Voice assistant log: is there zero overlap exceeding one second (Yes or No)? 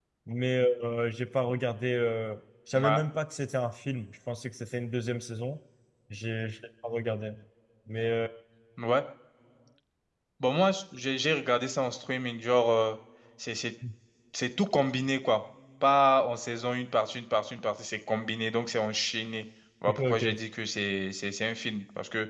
Yes